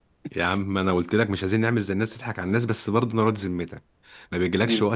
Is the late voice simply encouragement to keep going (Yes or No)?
Yes